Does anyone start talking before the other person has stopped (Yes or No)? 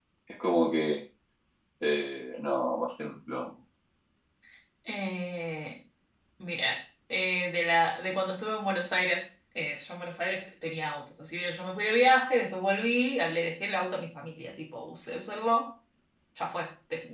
No